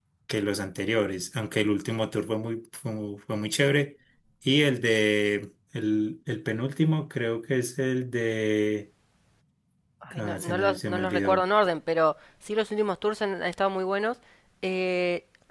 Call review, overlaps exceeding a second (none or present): present